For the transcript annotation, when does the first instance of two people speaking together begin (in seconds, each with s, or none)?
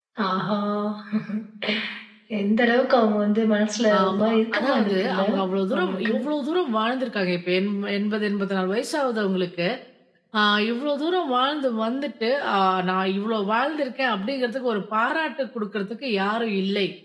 4.0 s